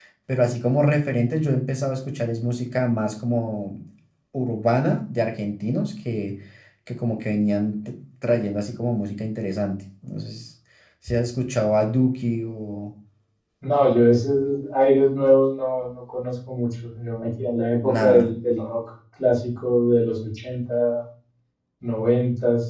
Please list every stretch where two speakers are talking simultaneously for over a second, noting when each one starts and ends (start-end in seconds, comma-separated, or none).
none